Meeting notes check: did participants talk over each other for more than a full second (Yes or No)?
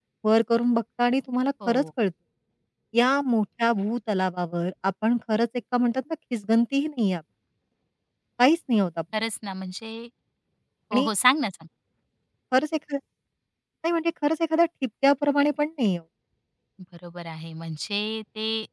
No